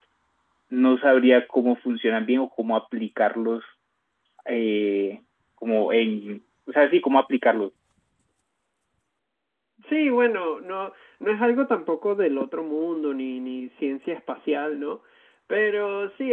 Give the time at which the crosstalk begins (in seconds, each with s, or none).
none